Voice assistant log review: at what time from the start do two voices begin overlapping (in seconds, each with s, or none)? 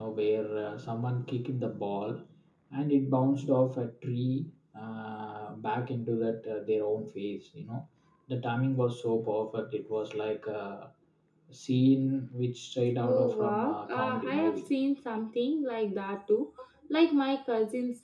13.0 s